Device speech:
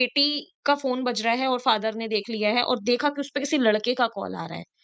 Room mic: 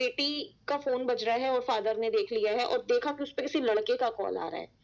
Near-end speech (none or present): none